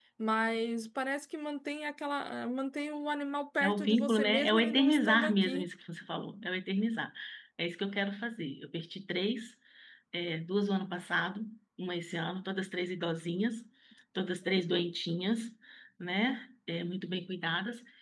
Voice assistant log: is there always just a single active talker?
No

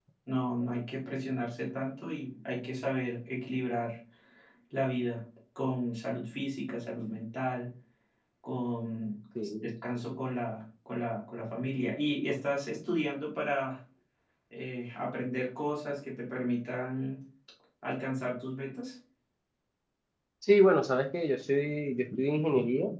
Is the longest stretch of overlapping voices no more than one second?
Yes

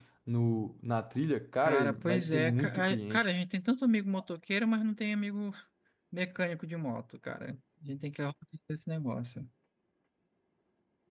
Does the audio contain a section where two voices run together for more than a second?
Yes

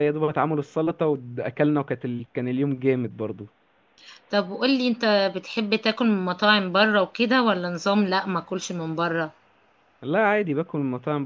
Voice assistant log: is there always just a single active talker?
Yes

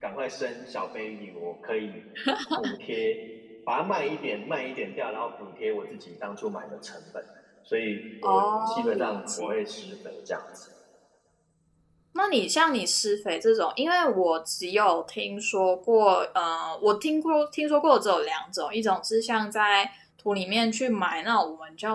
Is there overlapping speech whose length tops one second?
Yes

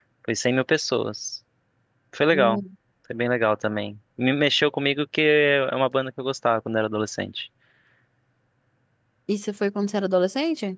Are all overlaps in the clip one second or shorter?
Yes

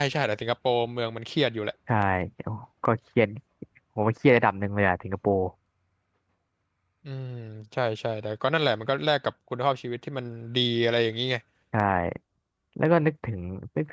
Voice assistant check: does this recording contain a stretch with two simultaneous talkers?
No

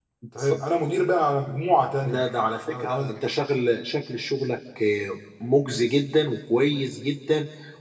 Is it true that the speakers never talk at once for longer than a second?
Yes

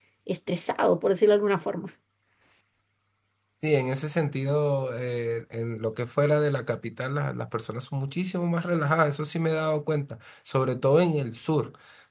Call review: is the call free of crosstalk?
Yes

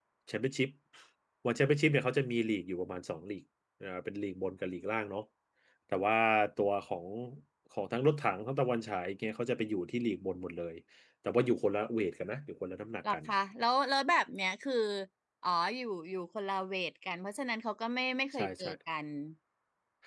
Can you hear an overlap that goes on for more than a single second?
No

